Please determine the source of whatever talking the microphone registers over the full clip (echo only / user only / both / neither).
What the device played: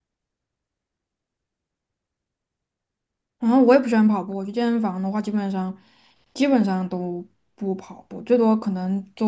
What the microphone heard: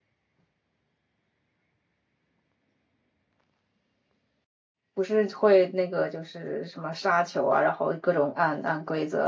user only